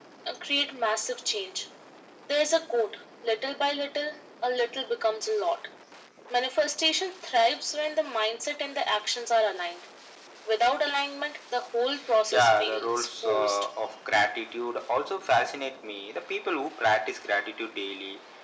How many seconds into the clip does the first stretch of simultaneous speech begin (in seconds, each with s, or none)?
12.3 s